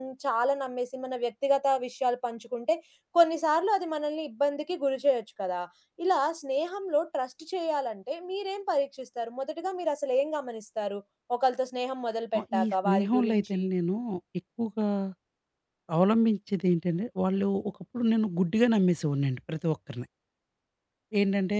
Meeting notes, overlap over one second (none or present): present